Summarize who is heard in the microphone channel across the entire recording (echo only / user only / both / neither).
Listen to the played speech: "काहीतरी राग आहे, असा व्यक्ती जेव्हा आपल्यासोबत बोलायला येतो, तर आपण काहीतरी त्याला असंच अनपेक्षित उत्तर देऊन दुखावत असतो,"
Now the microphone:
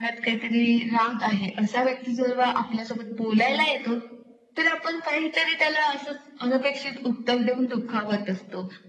echo only